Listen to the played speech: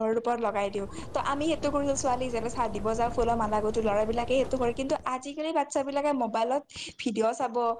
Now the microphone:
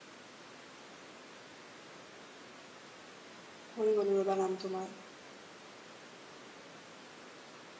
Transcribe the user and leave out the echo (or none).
হৰি গ'লো ৰবা নামটো মই,